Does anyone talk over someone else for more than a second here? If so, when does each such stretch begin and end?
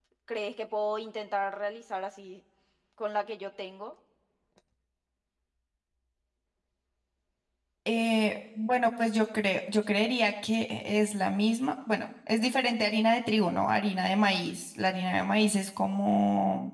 none

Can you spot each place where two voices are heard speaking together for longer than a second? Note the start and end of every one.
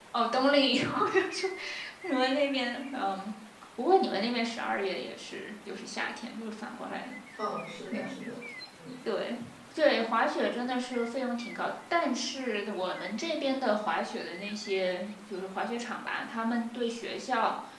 none

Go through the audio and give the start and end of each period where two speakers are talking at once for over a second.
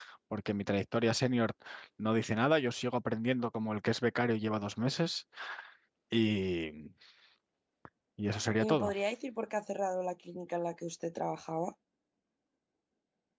none

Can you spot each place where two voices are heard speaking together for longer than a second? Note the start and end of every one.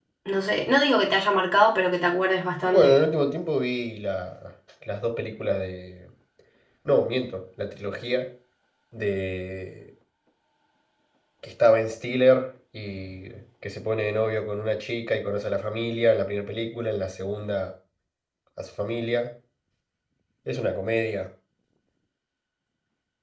none

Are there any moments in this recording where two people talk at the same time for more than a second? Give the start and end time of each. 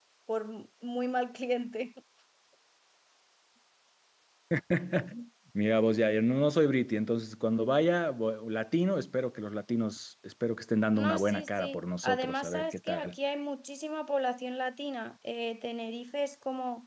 10.9-13.2

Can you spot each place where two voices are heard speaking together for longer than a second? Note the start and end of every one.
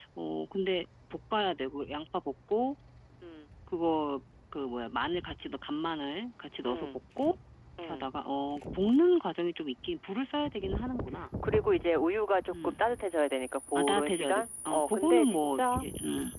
13.8-15.8

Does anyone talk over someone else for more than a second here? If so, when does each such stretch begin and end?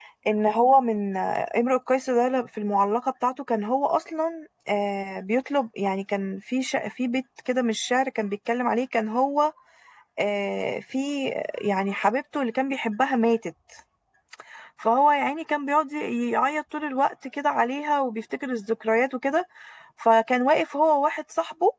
none

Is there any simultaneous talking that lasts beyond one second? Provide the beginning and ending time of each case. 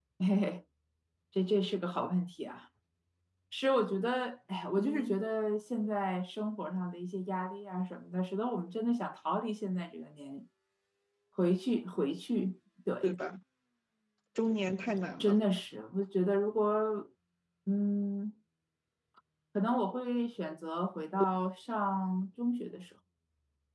none

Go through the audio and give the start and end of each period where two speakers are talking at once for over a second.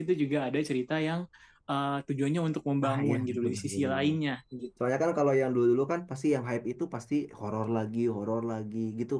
2.9-4.2

